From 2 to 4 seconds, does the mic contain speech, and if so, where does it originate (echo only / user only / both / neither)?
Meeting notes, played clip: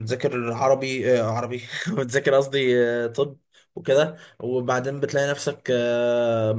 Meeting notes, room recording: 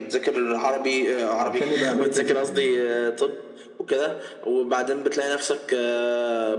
both